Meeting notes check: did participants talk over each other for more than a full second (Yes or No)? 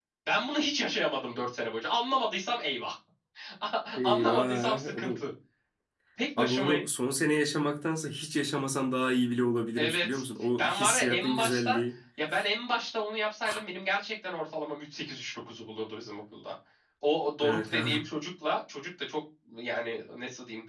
Yes